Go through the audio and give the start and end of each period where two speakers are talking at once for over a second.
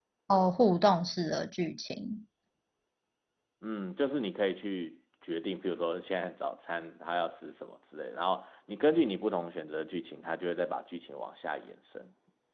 none

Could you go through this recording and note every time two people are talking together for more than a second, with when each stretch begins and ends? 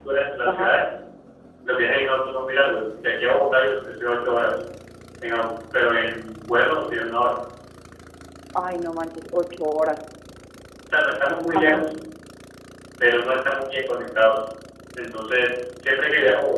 none

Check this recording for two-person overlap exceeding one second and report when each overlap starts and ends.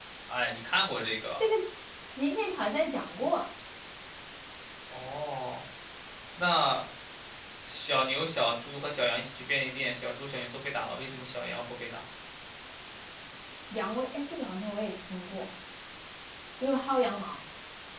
none

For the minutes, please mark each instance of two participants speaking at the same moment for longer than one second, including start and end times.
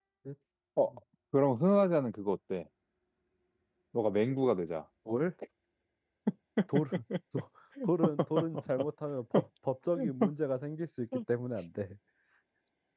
none

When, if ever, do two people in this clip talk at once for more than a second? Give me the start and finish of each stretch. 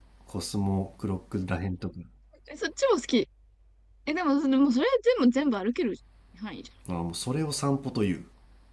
none

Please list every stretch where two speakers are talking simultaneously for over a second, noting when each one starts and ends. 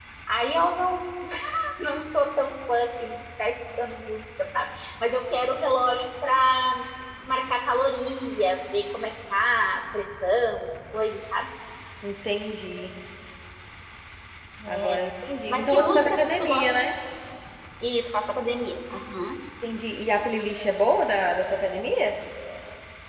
15.5-16.8

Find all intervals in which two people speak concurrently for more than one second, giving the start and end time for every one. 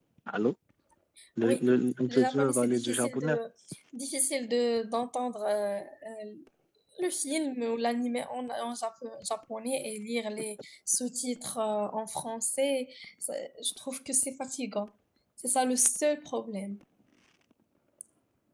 2.1-3.4

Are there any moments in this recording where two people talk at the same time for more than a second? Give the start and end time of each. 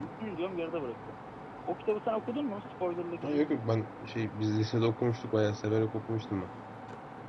none

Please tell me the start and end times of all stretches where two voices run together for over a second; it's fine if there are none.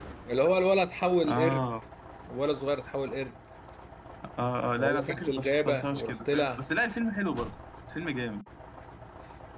4.8-6.6

